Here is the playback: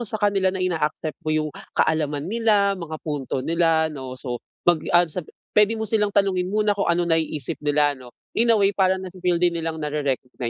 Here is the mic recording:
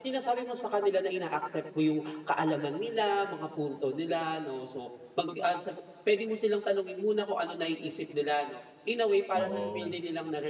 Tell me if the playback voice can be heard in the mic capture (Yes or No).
Yes